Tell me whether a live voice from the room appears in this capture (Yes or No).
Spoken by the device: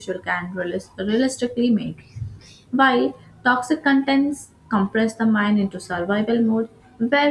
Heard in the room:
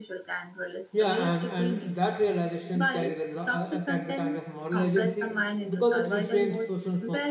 Yes